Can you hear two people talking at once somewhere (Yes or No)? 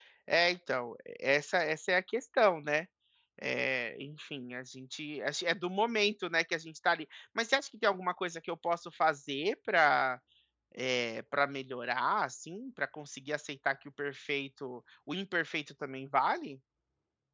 No